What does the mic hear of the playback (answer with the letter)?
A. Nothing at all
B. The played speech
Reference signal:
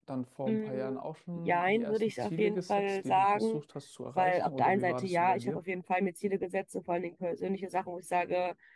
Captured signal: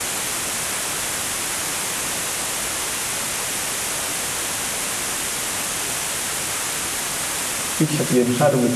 A